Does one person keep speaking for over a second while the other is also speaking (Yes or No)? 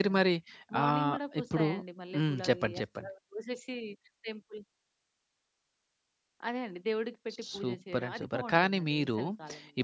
Yes